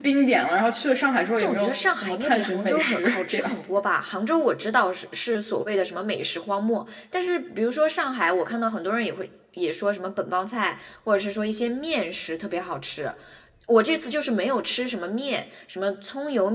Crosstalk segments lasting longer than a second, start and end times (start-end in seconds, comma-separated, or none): 1.4-3.5